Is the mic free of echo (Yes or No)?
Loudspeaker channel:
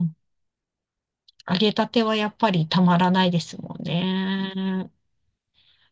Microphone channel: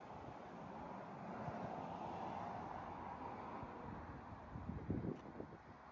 Yes